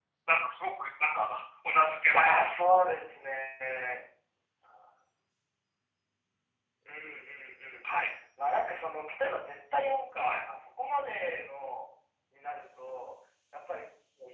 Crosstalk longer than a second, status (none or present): none